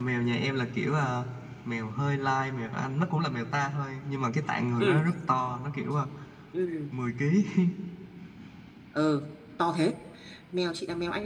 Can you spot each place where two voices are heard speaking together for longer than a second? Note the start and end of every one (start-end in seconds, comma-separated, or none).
none